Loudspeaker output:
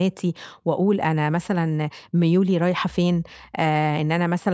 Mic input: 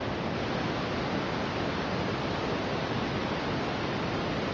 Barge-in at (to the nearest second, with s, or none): none